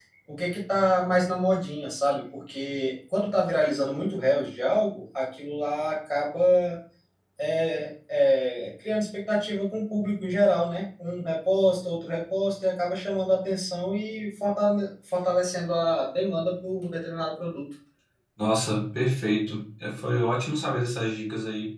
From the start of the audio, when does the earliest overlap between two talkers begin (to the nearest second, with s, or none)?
none